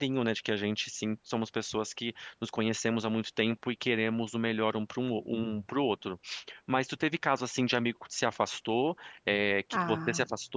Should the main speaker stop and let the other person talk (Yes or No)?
No